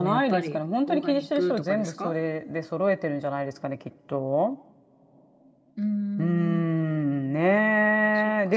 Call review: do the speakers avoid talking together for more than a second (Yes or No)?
No